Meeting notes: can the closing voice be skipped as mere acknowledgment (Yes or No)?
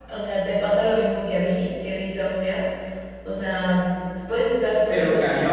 Yes